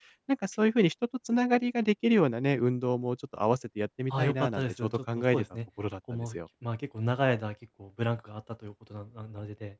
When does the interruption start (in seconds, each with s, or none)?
4.1 s